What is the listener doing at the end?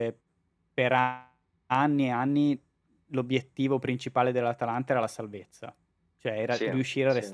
listening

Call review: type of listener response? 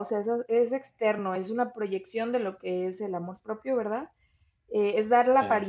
listening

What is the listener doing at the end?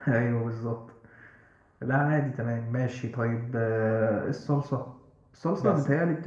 listening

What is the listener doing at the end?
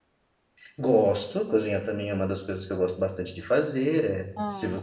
listening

